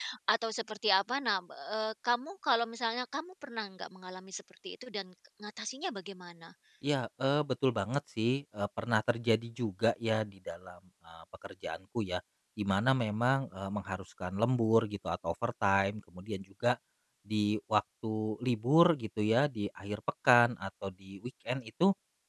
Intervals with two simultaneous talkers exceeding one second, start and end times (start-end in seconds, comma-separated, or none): none